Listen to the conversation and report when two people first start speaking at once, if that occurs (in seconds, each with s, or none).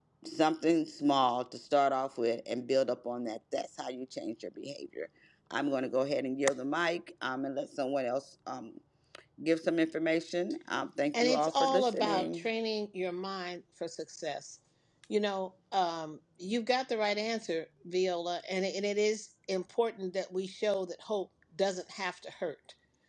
11.1 s